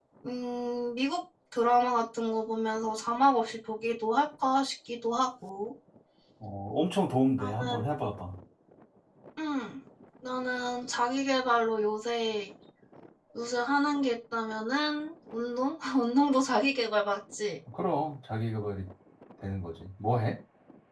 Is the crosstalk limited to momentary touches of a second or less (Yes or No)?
Yes